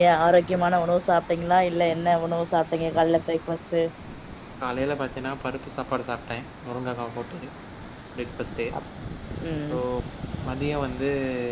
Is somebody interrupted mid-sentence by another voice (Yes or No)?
No